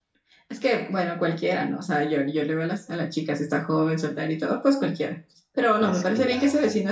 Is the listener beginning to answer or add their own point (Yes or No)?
No